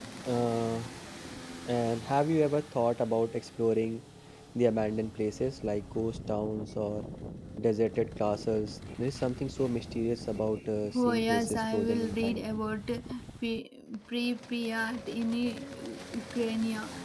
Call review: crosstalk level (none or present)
present